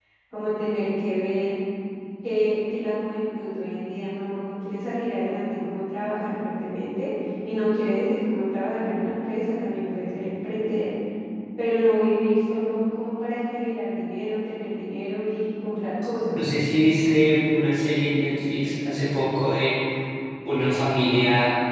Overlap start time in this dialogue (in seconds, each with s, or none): none